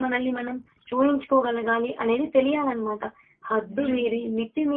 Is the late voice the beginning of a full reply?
No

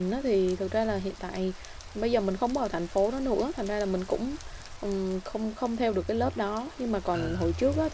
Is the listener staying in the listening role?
Yes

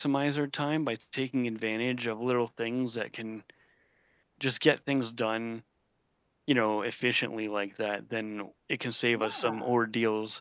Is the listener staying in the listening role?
Yes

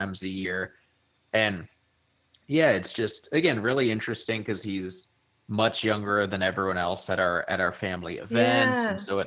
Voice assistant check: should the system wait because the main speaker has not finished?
Yes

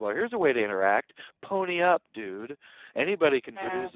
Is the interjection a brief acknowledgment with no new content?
Yes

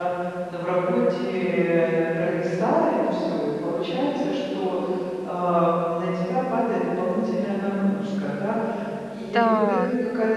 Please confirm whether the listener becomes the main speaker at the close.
No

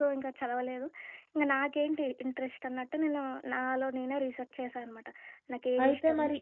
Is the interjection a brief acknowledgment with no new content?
No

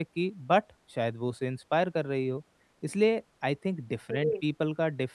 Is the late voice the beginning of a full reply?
No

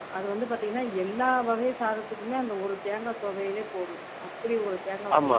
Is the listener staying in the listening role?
No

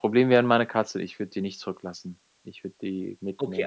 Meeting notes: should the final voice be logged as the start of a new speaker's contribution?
Yes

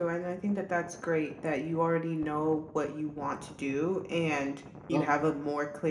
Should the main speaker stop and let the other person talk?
No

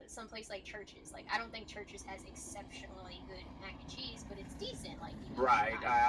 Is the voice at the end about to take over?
Yes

